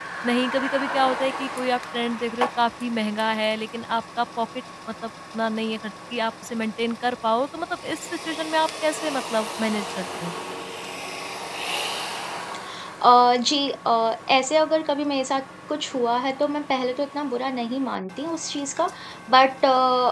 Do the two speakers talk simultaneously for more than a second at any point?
No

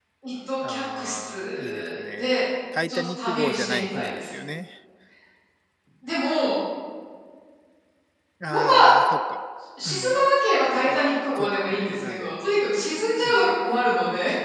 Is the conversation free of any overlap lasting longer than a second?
No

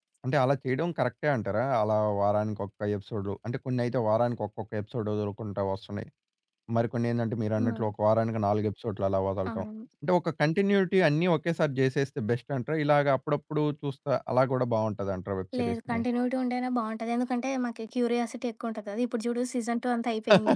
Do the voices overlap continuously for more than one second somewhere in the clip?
No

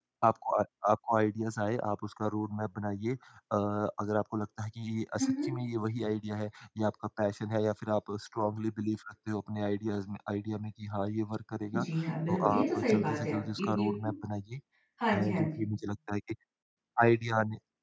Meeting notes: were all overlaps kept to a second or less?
No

